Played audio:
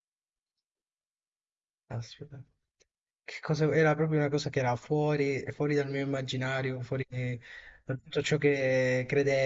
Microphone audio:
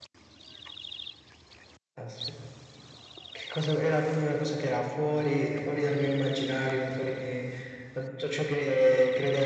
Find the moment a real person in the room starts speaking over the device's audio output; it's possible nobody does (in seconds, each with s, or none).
none